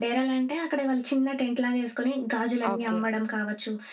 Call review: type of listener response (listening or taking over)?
listening